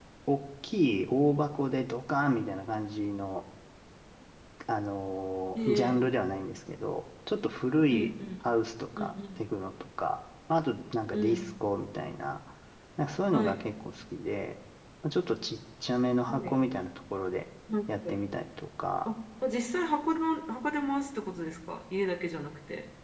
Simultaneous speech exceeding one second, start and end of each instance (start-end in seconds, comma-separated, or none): none